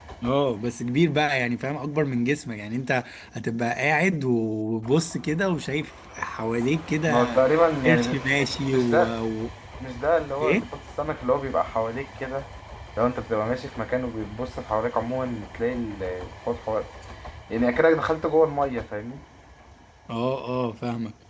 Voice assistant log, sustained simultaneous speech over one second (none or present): none